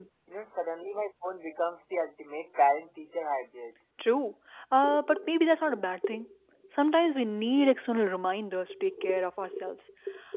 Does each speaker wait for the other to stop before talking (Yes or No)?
Yes